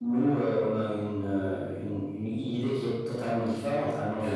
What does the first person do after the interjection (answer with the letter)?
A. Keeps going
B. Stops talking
A